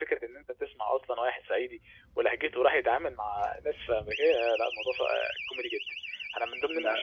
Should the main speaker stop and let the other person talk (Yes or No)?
No